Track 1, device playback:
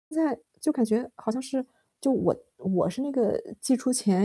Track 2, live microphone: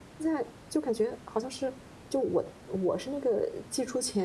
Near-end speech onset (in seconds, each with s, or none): none